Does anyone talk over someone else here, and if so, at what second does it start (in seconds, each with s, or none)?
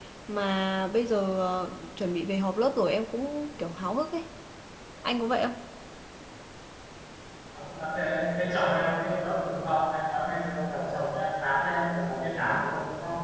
none